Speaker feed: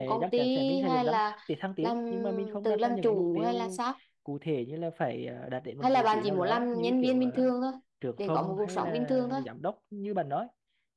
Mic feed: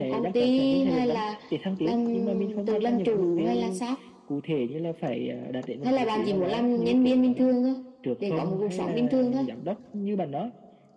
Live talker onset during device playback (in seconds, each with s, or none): none